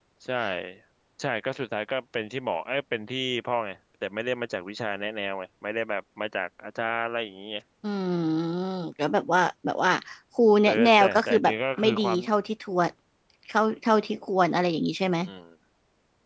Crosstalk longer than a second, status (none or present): present